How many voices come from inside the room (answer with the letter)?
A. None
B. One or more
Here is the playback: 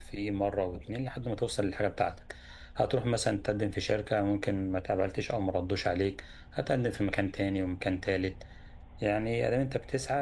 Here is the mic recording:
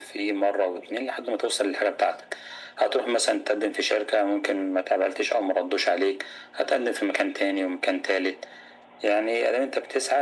A